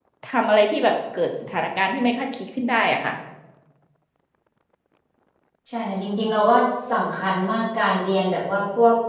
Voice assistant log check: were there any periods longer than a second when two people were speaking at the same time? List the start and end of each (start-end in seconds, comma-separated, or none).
none